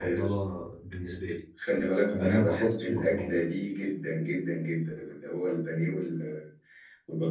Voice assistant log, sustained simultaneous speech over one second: present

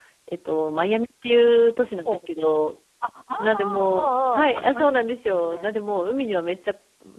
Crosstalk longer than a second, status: present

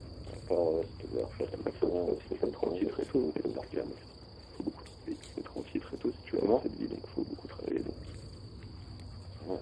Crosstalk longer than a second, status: present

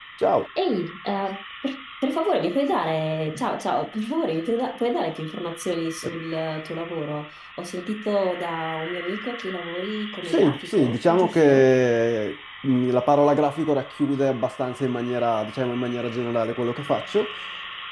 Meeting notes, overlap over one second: present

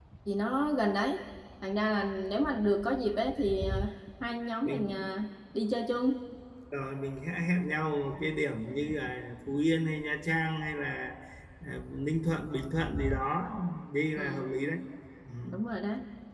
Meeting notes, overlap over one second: none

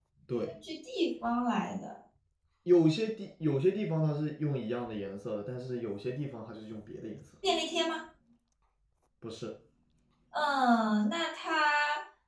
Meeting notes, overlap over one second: none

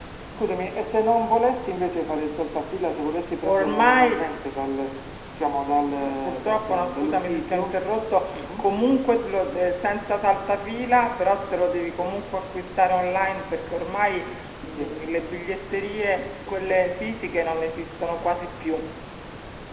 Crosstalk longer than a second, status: present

